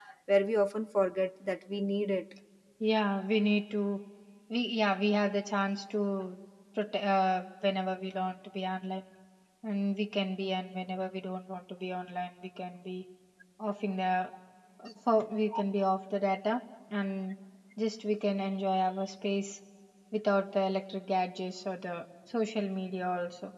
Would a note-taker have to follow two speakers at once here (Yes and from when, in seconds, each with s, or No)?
No